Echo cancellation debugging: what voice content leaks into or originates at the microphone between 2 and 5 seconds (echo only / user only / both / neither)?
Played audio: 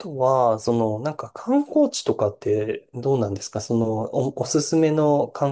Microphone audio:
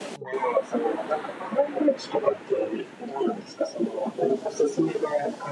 echo only